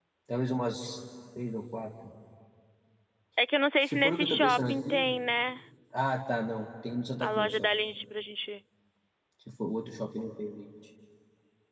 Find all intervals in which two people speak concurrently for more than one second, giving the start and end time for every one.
3.9-5.0

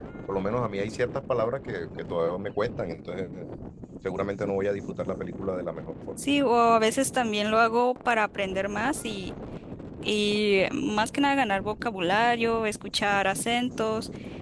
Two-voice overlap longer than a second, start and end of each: none

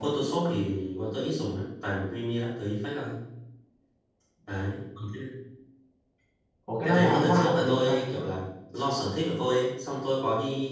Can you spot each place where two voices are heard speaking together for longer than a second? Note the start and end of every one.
6.8-8.0

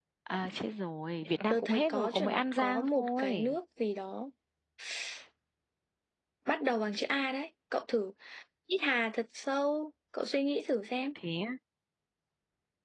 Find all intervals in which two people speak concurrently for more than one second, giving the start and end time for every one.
1.5-3.6

